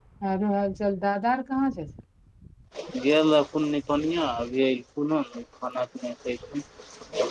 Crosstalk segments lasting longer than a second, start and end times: none

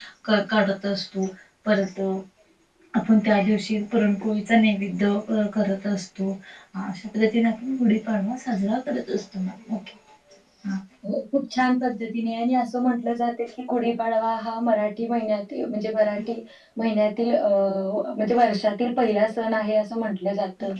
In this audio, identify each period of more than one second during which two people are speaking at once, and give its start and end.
none

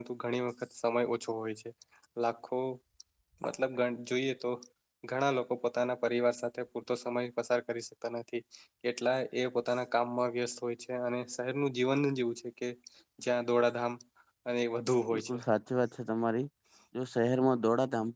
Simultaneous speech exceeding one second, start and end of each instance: none

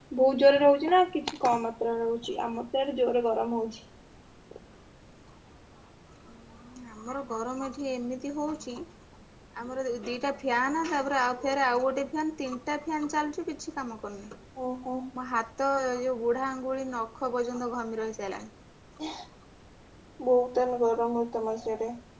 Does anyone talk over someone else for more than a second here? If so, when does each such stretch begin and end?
none

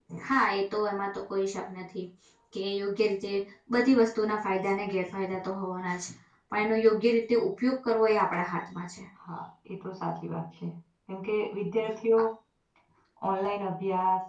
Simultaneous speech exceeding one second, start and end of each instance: none

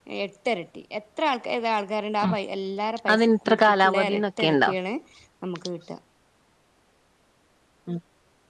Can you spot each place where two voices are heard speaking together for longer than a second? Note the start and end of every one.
3.1-4.7

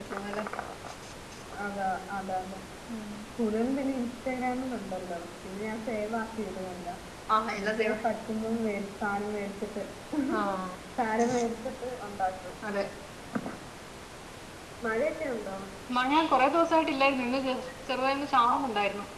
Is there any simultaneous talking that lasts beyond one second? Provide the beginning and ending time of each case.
none

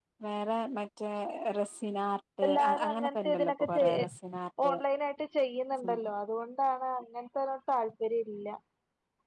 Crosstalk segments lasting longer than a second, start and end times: 2.4-3.8

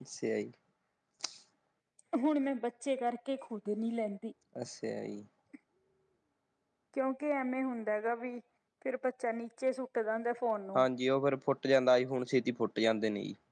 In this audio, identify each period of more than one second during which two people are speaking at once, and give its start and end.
none

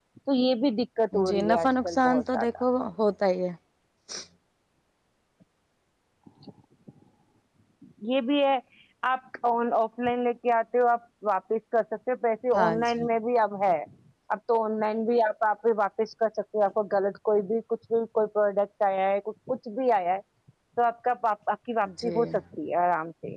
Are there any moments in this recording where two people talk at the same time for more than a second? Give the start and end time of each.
1.2-2.6

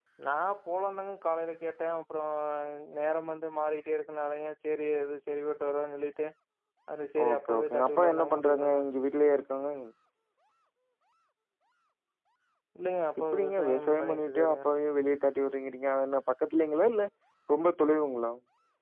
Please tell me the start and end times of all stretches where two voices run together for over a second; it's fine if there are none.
7.2-8.8, 13.3-14.7

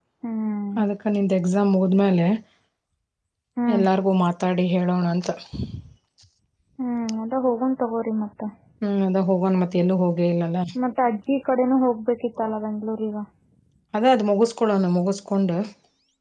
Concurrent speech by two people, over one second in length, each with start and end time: none

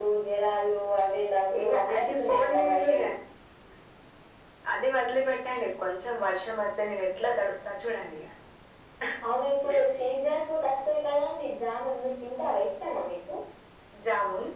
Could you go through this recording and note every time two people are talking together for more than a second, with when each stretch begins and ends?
1.6-3.0

